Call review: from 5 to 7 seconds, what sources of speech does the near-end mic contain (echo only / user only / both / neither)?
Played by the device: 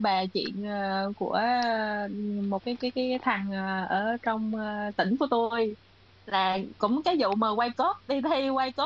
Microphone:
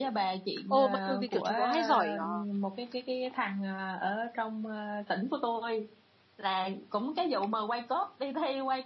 echo only